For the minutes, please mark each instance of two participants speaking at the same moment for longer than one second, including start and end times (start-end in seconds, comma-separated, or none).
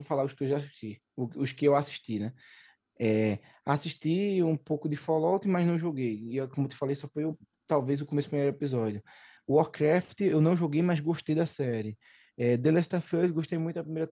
none